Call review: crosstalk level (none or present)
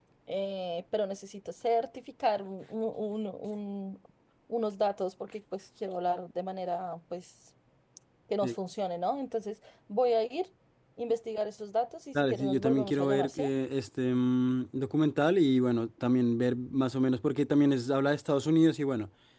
present